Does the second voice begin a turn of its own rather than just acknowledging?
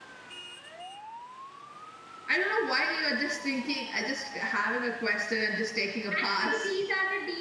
Yes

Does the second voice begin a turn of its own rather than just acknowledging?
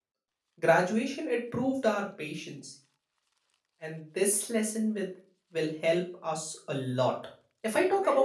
No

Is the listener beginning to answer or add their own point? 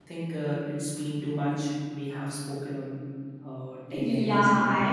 Yes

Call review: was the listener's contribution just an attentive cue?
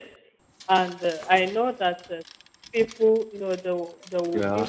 Yes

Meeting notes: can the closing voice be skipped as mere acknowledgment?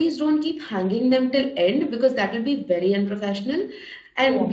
Yes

